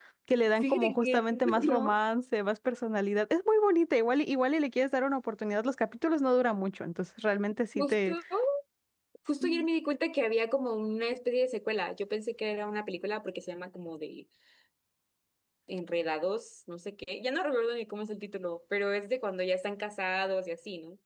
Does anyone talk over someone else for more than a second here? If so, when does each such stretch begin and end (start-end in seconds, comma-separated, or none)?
0.6-2.0